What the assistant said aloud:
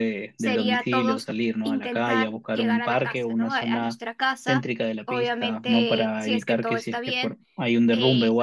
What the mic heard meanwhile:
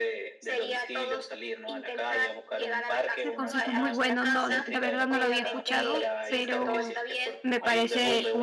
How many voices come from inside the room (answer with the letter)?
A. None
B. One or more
B